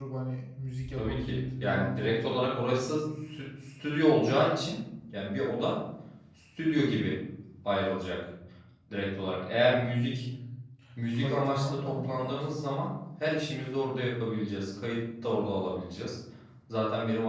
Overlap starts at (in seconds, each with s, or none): 0.9 s